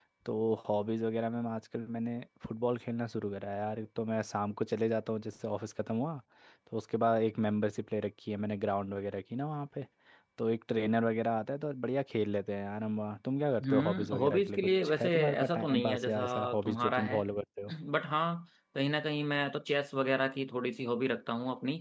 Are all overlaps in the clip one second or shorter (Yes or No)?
No